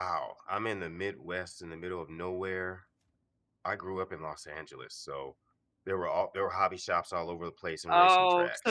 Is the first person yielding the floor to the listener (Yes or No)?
Yes